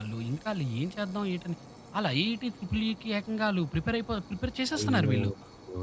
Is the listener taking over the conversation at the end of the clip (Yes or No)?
Yes